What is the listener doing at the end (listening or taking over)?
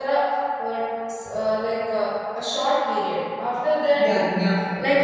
taking over